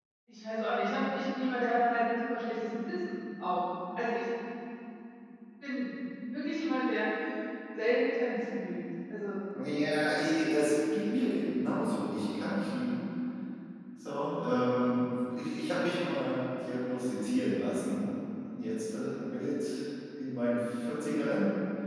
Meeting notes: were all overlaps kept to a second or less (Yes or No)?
Yes